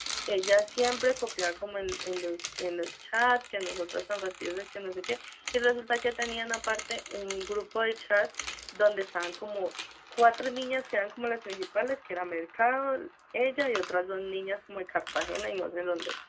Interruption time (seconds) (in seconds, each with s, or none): none